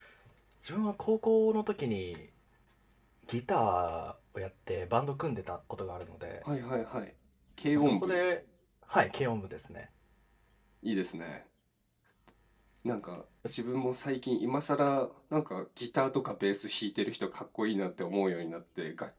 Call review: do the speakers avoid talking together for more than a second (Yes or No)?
Yes